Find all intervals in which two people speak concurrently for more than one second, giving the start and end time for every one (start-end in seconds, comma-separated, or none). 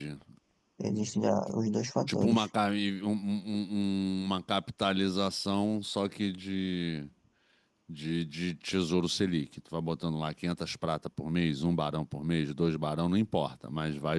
none